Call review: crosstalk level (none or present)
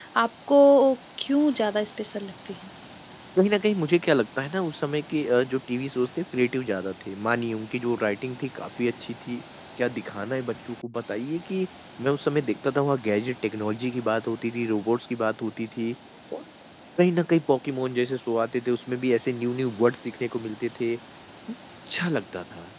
none